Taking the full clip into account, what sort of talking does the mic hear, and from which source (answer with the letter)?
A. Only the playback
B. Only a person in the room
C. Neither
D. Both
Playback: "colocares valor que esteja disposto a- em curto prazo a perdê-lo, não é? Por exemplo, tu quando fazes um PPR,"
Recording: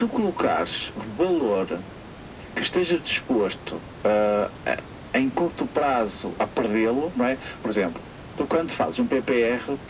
A